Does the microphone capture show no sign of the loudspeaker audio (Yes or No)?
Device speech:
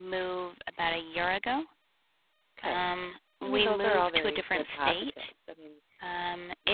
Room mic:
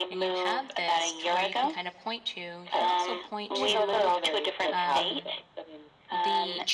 No